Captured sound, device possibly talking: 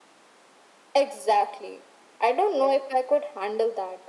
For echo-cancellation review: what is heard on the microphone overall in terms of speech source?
echo only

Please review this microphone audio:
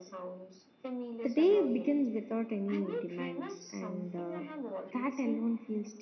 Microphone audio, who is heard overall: both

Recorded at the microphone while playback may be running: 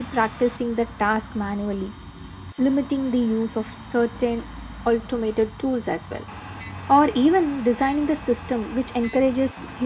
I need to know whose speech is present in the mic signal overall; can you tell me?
echo only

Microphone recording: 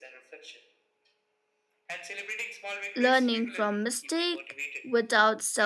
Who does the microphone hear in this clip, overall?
both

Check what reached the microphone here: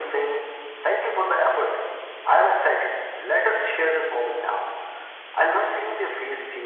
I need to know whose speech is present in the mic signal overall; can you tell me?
echo only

